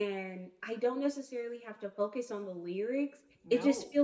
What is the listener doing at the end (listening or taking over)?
listening